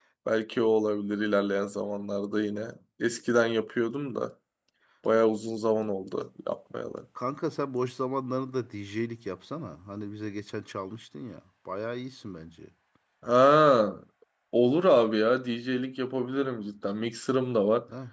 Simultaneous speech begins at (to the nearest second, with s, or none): none